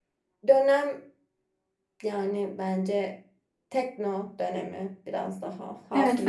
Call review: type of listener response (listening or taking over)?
taking over